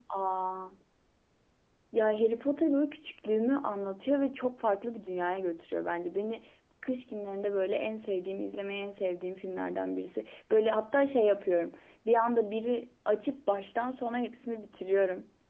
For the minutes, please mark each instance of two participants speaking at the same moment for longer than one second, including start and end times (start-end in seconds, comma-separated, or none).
none